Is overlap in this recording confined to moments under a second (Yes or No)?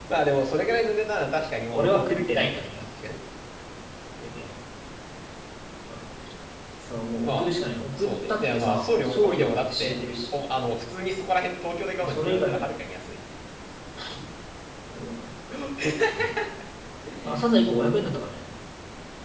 No